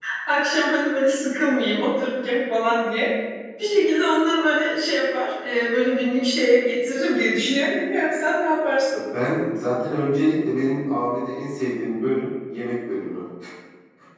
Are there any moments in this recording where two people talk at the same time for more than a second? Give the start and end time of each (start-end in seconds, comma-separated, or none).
none